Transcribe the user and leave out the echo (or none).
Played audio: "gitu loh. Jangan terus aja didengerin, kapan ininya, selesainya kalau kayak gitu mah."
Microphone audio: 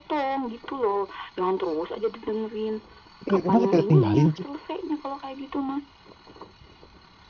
Kita- masa kita tinggalin cie